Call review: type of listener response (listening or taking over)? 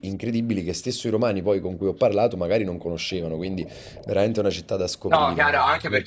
taking over